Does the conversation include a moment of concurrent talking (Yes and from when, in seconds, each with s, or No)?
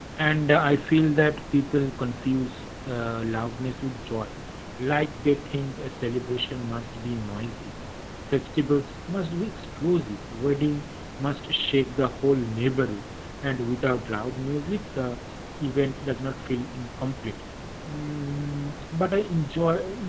No